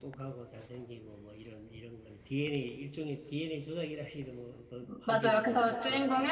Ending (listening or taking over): taking over